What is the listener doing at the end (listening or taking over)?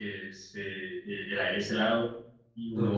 listening